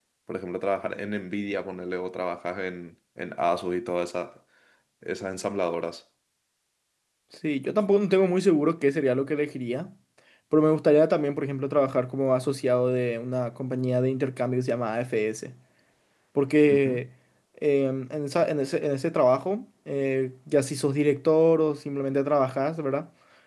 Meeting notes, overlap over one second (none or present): none